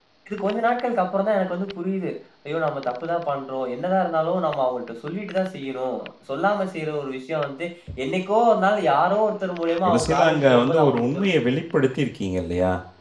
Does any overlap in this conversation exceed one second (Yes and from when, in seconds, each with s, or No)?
Yes, from 9.8 s